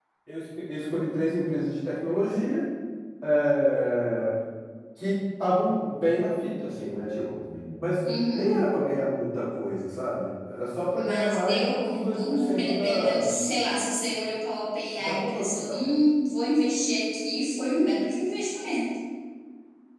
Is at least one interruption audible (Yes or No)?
Yes